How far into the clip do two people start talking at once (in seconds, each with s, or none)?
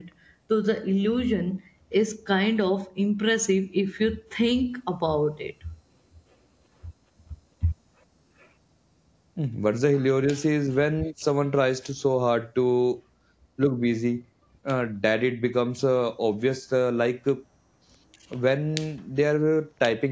none